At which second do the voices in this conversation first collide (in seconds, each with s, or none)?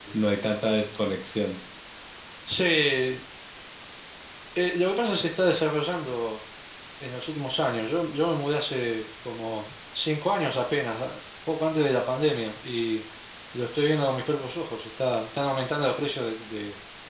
none